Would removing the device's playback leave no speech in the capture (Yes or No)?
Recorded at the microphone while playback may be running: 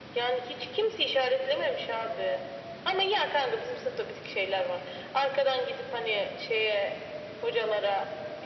Yes